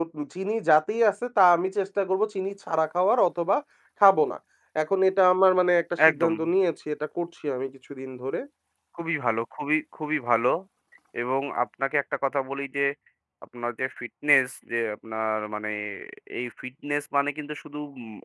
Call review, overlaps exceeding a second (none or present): none